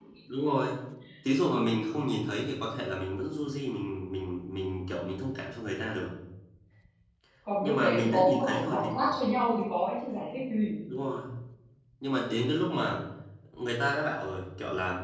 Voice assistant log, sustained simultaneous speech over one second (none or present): present